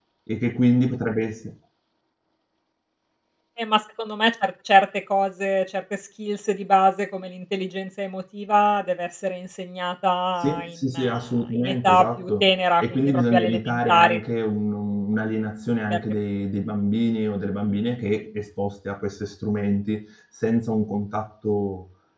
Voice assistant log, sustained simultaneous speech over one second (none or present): present